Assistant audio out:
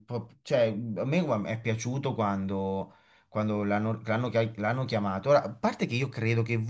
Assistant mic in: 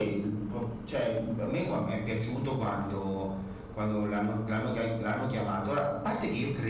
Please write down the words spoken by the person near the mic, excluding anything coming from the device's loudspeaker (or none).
none